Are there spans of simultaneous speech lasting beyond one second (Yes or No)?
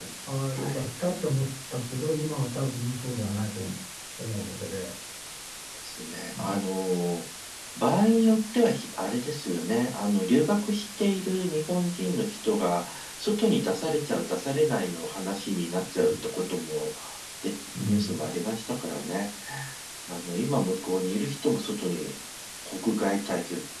No